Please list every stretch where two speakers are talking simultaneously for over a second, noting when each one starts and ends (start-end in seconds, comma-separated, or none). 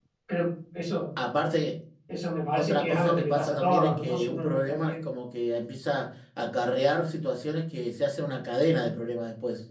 2.6-5.1